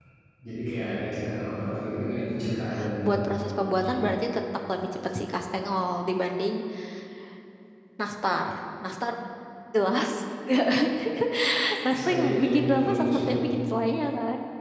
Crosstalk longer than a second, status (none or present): present